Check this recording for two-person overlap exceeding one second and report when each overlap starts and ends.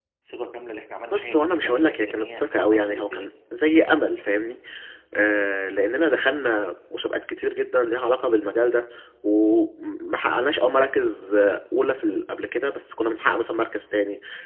1.1-3.3

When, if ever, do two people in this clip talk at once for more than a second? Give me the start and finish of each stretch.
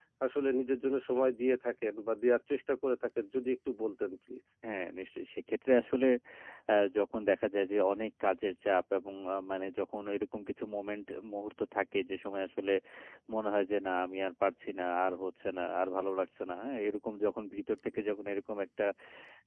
none

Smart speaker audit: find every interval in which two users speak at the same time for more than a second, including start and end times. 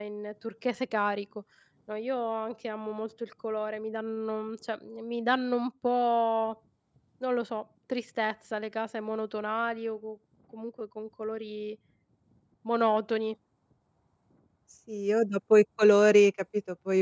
none

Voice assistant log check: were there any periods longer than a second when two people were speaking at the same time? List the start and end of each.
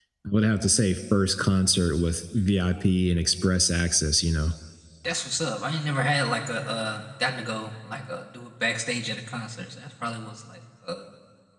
none

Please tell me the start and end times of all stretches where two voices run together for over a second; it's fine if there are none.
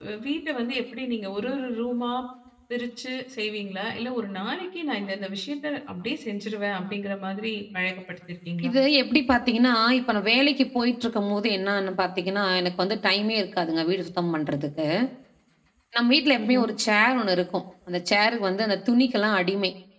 none

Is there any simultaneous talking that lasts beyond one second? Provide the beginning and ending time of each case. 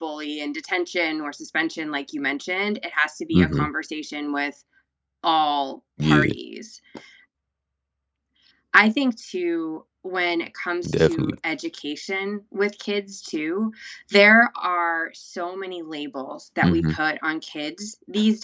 none

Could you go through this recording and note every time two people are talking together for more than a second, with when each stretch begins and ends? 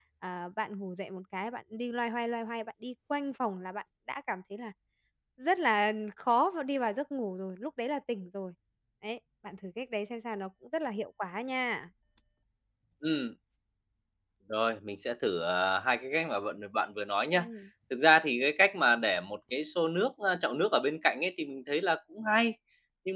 none

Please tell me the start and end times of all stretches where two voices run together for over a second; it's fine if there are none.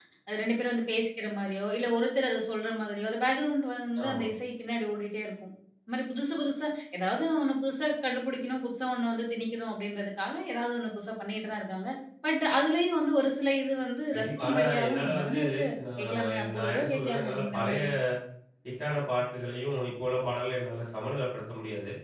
14.1-15.4, 16.0-17.8

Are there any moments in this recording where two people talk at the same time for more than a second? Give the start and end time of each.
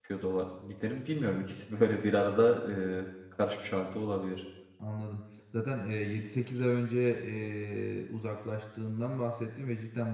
none

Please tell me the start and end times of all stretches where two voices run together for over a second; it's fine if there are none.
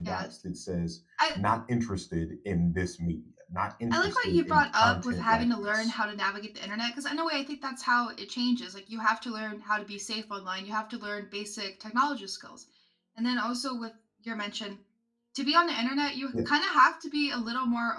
3.9-6.0

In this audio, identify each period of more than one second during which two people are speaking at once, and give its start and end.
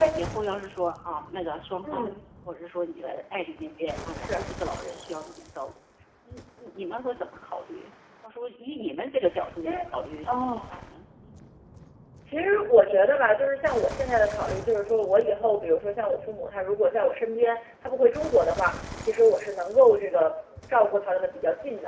none

